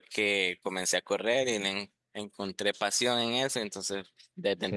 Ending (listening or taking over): listening